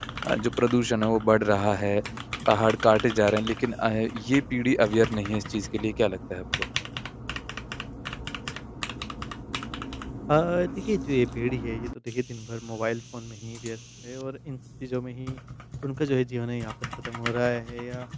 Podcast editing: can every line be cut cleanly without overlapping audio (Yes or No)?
Yes